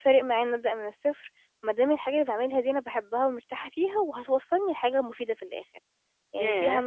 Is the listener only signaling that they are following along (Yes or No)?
No